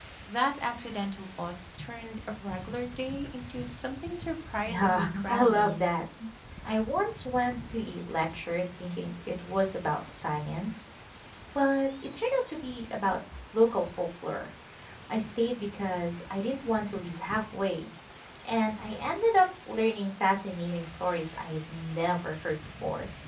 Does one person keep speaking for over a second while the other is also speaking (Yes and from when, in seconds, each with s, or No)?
Yes, from 4.7 s